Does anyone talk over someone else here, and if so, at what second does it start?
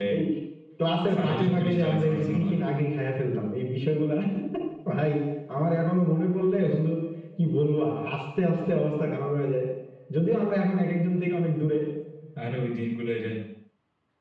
1.1 s

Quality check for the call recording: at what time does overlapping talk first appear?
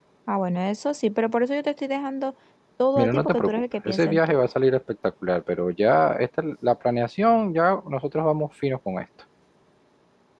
3.0 s

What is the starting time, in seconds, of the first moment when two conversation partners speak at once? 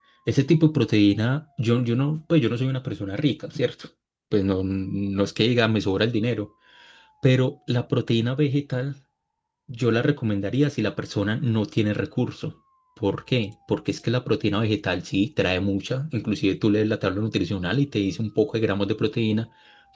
none

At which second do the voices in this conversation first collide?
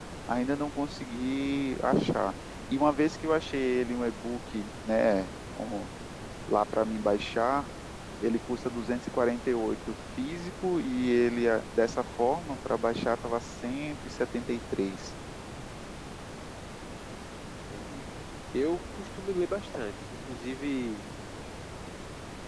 none

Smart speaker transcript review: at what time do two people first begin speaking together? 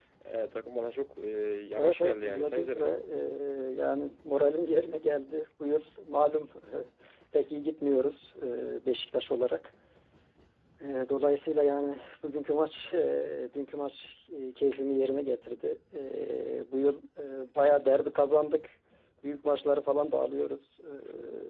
1.8 s

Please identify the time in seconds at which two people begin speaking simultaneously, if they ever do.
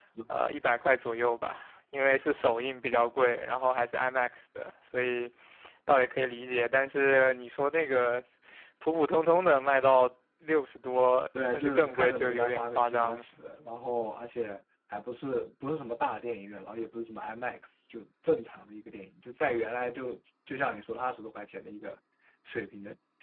11.3 s

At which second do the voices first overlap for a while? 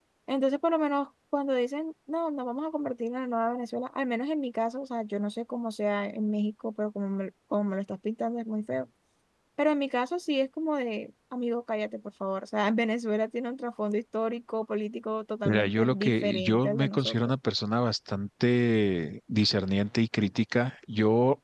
15.4 s

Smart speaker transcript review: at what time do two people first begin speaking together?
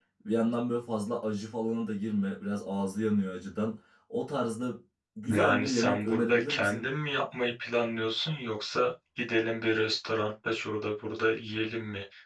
5.3 s

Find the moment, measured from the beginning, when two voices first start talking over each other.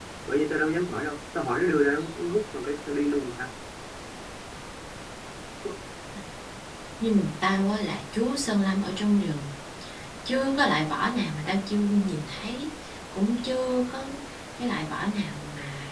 none

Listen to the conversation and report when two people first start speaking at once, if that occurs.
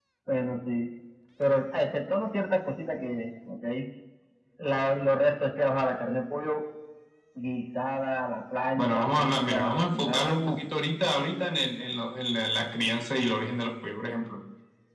8.8 s

